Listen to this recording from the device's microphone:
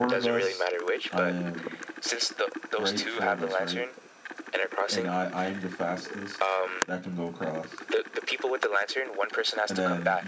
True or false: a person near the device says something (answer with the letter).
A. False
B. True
B